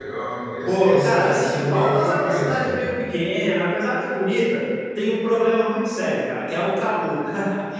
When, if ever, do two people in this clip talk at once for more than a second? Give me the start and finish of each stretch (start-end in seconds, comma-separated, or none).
0.7-2.9